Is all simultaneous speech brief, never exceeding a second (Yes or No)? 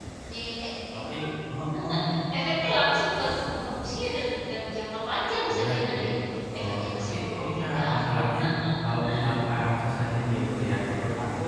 No